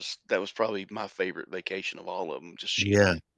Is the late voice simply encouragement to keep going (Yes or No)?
No